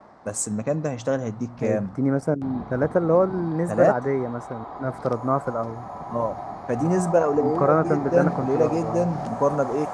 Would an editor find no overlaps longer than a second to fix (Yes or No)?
No